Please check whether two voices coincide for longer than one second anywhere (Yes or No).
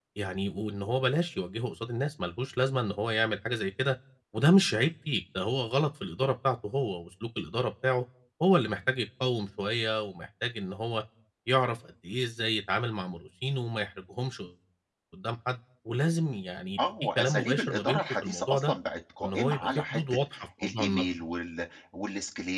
Yes